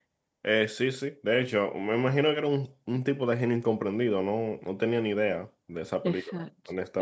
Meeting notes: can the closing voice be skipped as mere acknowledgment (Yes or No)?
No